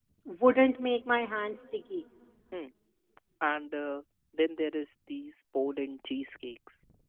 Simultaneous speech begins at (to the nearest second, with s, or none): none